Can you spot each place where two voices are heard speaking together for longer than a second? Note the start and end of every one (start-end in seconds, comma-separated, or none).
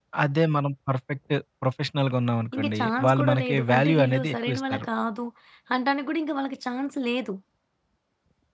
2.6-4.9